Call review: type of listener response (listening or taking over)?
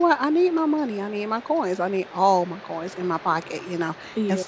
listening